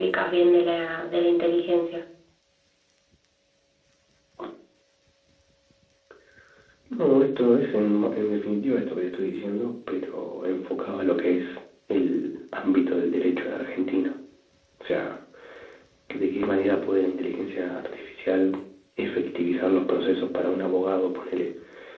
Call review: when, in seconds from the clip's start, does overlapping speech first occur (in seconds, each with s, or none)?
none